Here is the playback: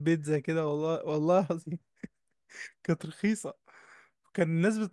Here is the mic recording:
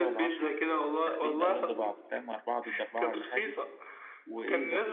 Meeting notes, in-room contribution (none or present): present